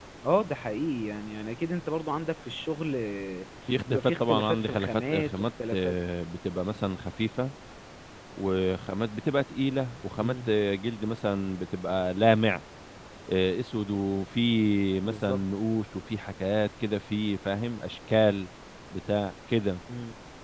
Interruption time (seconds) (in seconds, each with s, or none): 3.9 s